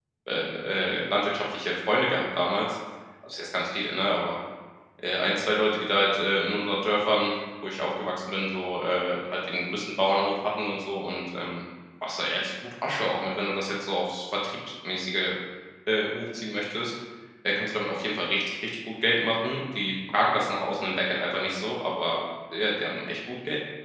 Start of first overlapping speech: none

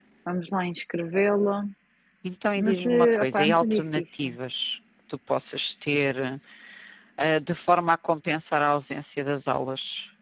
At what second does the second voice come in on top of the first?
3 s

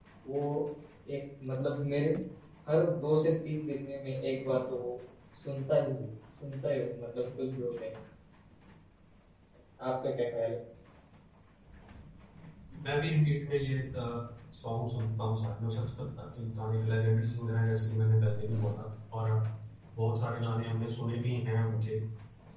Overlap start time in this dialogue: none

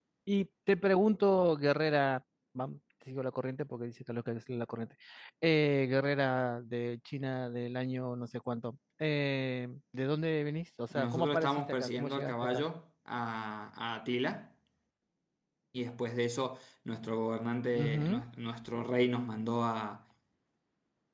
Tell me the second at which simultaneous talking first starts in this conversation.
11 s

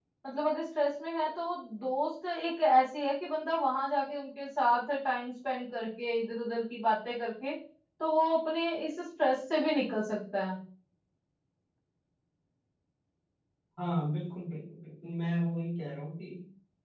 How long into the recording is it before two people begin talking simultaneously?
none

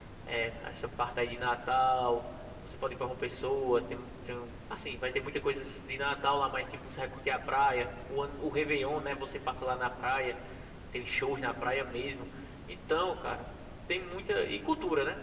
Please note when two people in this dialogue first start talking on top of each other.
none

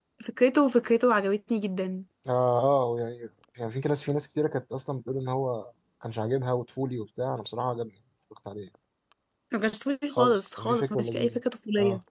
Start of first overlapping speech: 10 s

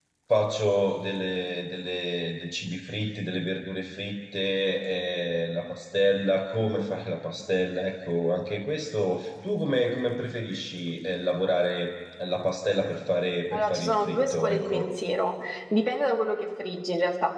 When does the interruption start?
14 s

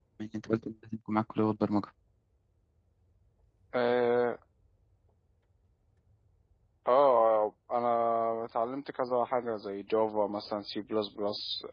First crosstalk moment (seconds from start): none

